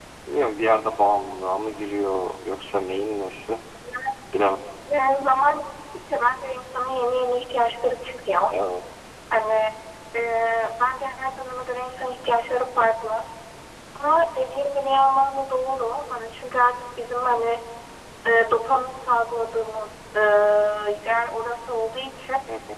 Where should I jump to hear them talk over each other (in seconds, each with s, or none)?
none